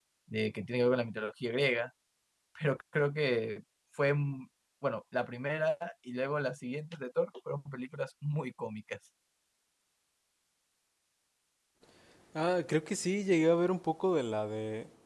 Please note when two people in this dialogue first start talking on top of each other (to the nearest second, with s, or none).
none